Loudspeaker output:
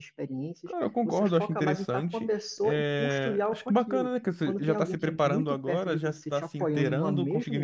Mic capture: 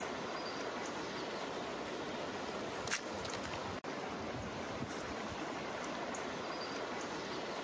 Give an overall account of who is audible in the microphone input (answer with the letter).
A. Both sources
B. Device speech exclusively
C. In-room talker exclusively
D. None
D